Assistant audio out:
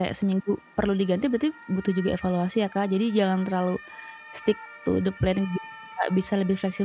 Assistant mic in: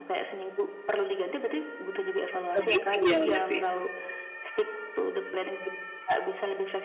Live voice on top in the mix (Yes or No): Yes